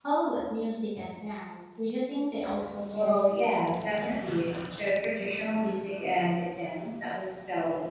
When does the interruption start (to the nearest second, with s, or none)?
3 s